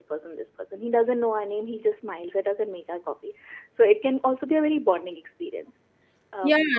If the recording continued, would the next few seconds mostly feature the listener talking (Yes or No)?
Yes